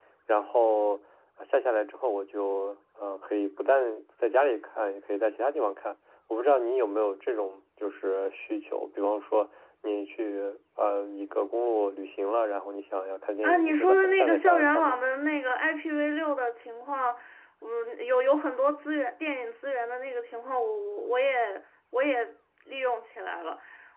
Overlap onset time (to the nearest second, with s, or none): 13 s